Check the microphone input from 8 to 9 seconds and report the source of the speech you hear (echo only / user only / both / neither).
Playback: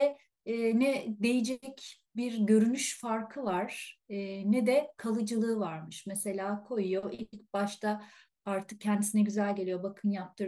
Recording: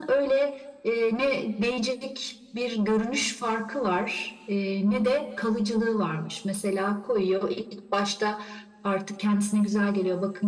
echo only